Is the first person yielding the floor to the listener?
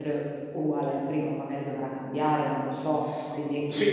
Yes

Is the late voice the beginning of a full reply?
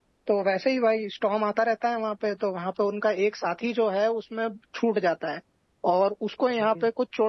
No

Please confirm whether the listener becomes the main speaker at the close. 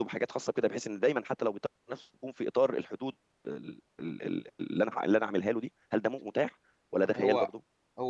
Yes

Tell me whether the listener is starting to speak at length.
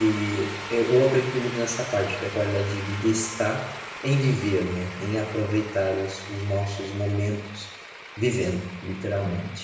Yes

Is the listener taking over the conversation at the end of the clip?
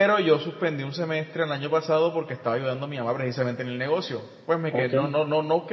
No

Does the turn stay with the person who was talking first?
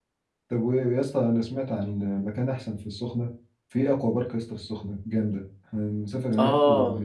Yes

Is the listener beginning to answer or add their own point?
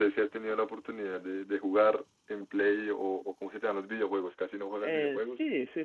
Yes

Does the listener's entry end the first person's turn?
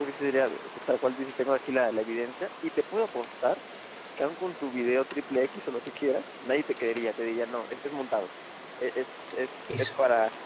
No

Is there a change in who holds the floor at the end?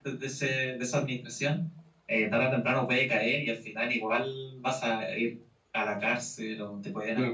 Yes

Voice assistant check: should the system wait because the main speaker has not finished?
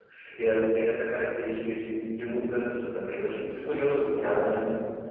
No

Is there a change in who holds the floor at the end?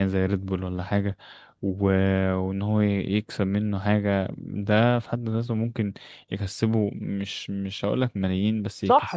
Yes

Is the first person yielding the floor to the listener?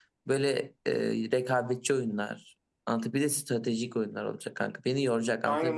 Yes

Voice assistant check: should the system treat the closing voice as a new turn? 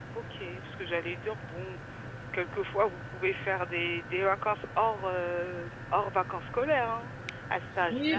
Yes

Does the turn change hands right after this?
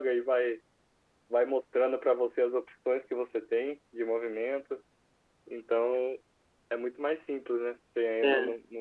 No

